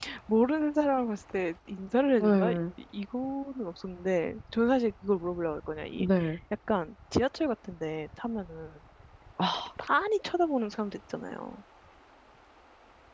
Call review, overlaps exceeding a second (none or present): none